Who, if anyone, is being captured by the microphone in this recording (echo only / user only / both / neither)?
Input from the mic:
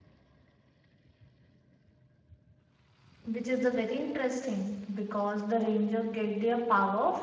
user only